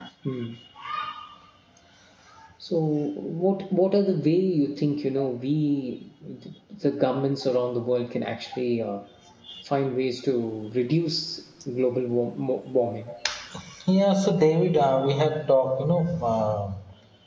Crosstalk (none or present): none